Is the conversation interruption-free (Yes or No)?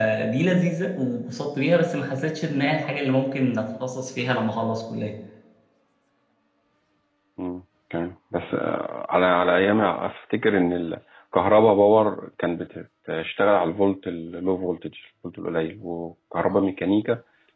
Yes